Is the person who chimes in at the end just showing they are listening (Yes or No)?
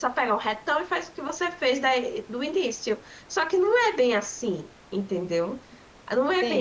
No